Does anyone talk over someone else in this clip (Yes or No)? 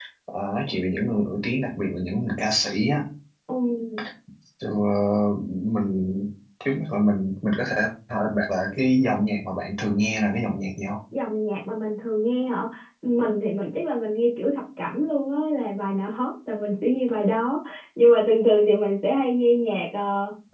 No